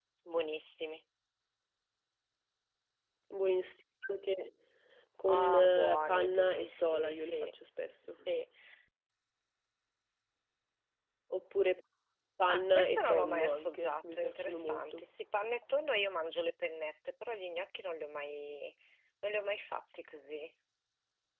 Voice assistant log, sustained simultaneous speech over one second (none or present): present